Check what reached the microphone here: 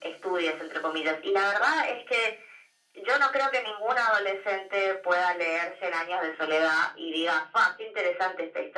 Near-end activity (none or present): none